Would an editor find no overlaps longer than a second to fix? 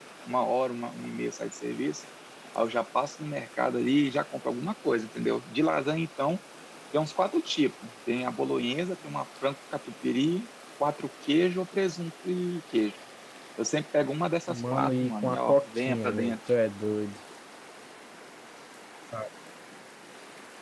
No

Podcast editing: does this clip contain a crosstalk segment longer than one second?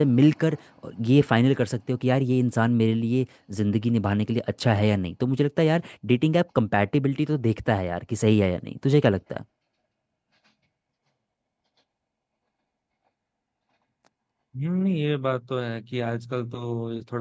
No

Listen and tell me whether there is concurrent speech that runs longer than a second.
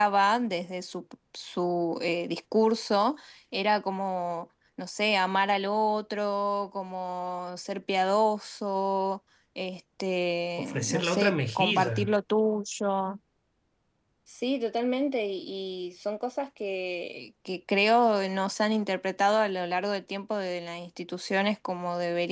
Yes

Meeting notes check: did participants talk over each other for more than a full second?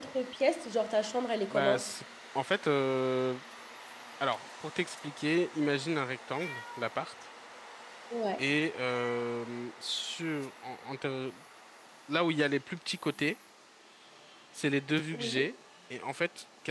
No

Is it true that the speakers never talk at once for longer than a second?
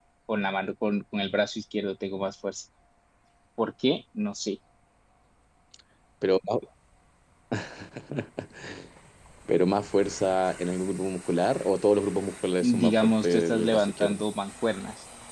No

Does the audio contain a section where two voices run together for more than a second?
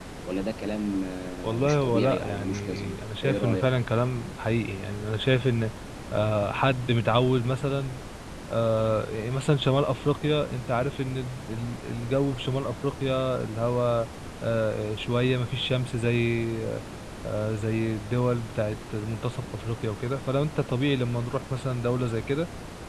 Yes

